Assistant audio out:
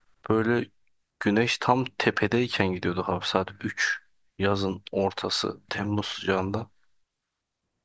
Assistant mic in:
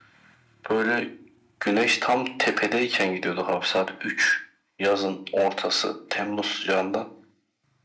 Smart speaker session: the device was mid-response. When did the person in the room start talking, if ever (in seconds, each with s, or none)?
none